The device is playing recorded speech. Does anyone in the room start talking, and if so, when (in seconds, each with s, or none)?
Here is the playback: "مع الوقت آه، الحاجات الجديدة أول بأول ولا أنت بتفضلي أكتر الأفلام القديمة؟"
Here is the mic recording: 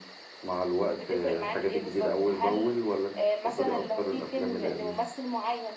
0.9 s